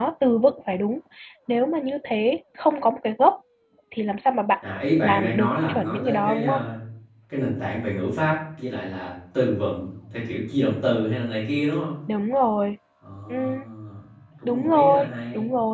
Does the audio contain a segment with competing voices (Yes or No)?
Yes